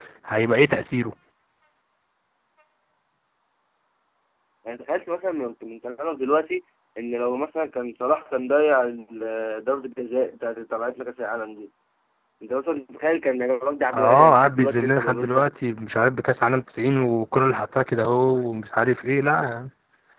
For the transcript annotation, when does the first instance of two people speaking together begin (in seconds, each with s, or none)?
13.9 s